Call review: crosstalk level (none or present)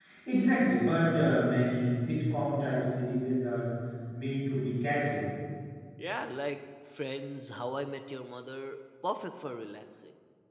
none